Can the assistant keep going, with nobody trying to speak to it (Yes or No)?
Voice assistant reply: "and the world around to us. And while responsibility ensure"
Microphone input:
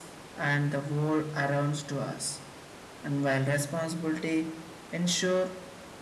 Yes